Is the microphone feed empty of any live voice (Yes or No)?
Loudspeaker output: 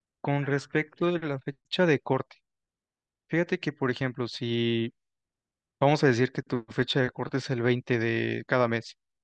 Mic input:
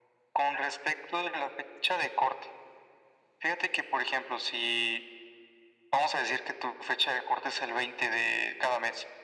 Yes